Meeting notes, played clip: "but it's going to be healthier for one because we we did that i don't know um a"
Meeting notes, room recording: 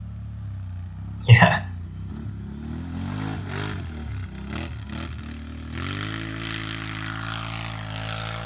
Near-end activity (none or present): present